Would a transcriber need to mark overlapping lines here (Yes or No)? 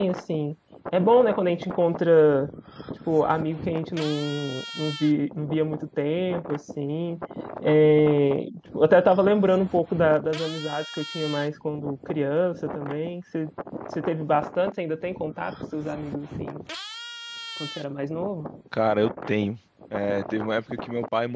No